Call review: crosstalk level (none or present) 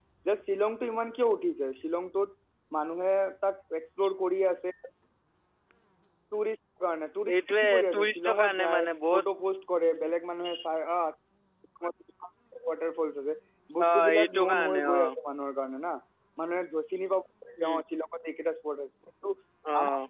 present